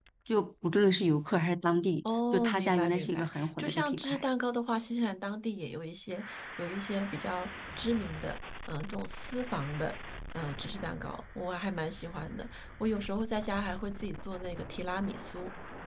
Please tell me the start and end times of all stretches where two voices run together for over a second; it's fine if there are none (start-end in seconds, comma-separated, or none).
2.0-4.2